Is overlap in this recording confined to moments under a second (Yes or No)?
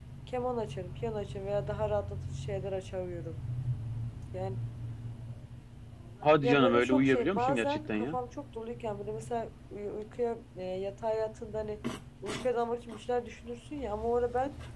No